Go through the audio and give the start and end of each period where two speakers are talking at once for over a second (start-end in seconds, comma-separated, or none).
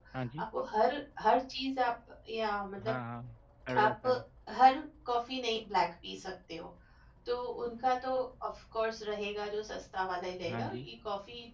none